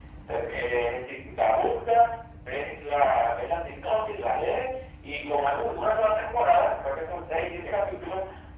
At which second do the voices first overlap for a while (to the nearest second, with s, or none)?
none